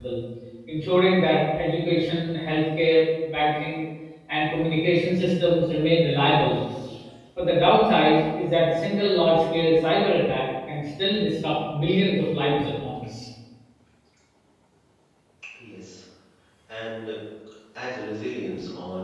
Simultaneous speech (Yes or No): No